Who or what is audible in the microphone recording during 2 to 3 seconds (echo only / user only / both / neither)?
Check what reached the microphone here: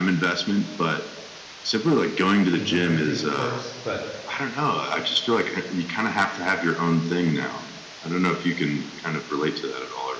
both